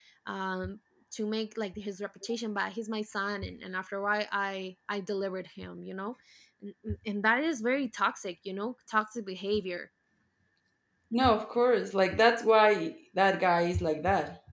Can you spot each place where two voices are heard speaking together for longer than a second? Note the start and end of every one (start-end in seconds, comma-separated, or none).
none